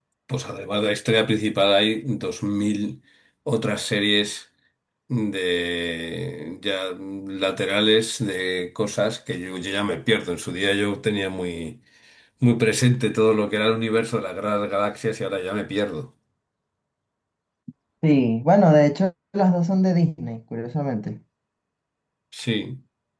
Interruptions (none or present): none